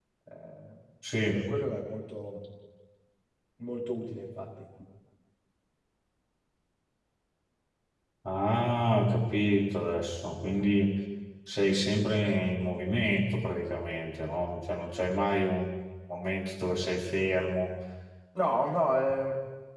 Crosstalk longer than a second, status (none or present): none